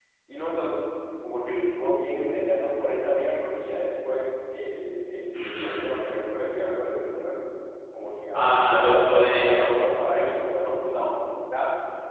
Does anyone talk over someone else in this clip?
Yes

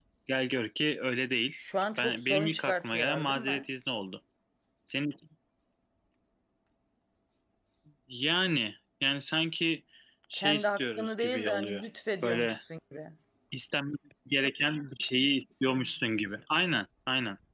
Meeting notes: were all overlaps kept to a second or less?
No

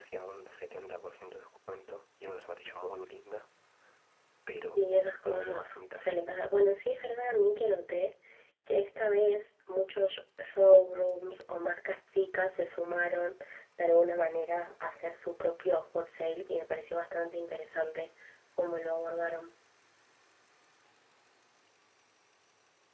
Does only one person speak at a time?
No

